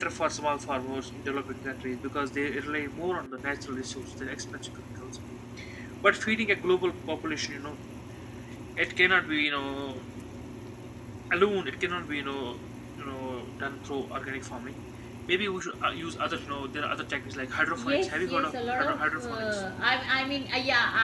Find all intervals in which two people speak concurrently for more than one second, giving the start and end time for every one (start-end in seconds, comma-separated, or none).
17.8-19.6